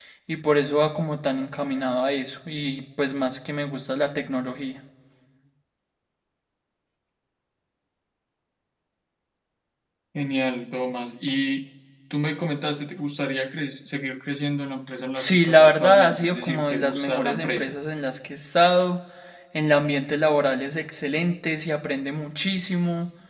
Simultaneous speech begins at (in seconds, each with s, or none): 15.2 s